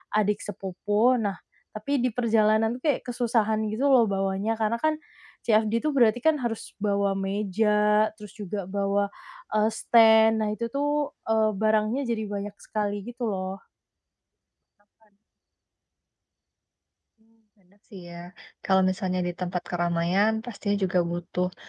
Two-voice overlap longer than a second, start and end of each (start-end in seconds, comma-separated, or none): none